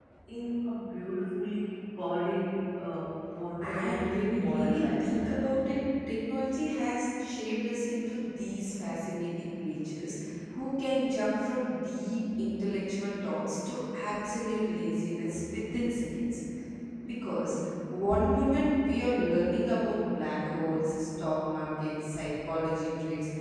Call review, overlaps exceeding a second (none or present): present